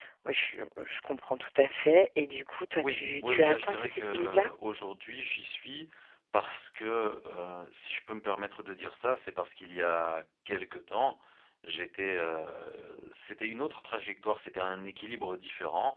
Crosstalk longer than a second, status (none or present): present